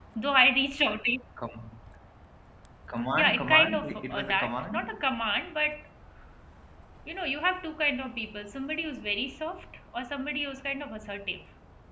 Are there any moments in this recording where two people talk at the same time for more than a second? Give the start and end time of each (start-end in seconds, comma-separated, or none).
3.1-4.9